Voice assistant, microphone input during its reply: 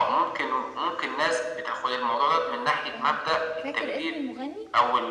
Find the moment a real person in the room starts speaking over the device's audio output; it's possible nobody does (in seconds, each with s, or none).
2.9 s